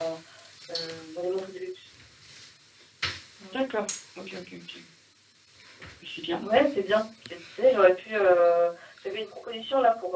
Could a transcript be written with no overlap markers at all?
Yes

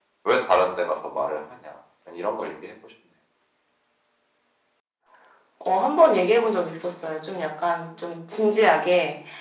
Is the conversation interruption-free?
Yes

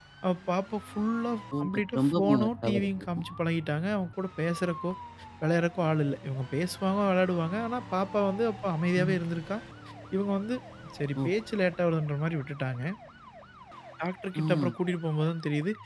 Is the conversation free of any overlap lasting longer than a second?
No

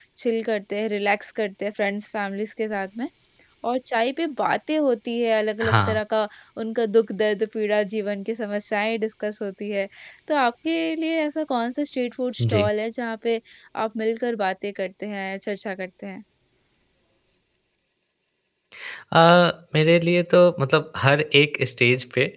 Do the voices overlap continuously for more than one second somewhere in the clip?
No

